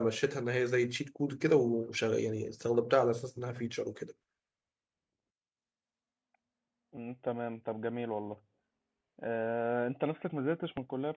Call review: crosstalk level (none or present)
none